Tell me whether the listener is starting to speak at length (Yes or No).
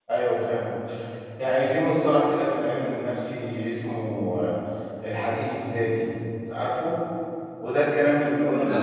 No